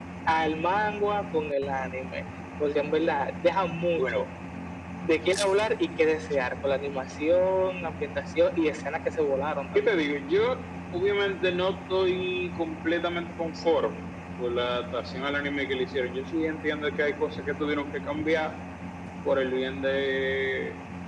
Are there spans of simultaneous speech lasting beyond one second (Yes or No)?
No